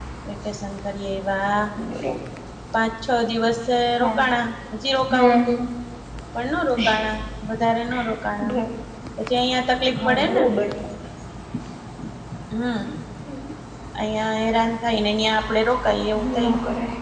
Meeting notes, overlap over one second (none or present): none